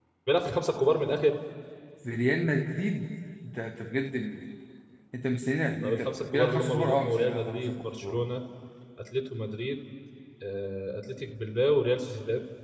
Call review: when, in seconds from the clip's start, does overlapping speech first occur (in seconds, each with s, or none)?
5.8 s